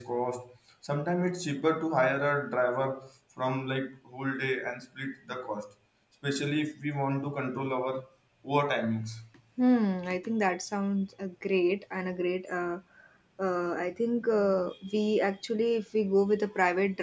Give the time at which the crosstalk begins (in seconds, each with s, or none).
none